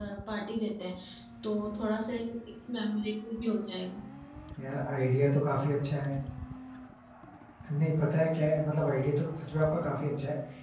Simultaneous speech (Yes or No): No